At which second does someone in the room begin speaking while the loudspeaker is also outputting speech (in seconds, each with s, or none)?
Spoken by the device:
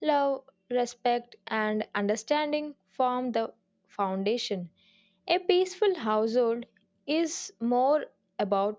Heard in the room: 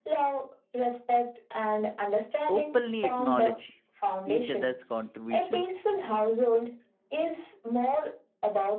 2.5 s